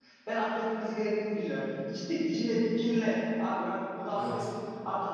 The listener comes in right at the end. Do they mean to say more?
No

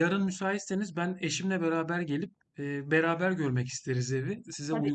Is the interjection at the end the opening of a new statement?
Yes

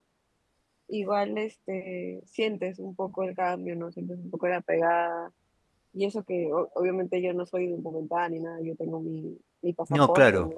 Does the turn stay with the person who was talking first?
Yes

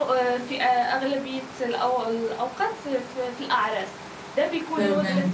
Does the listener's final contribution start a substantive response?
No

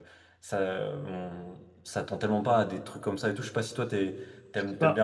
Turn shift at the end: No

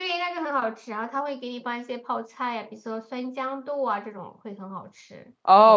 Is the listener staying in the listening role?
No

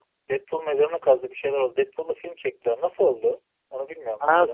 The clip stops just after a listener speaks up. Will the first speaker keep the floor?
No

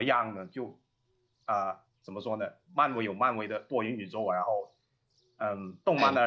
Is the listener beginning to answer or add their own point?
No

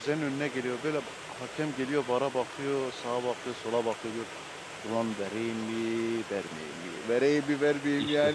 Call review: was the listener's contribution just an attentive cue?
Yes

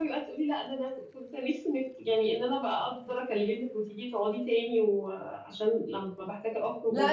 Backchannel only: No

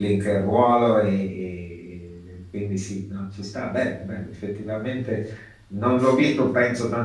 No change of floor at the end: Yes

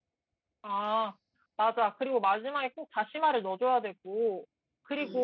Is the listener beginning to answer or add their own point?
Yes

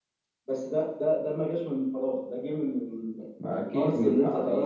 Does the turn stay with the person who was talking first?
No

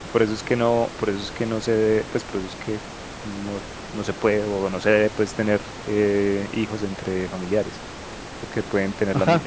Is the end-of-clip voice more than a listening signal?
Yes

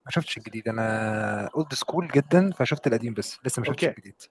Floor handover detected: Yes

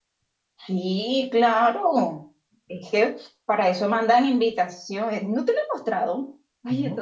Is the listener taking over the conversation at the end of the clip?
No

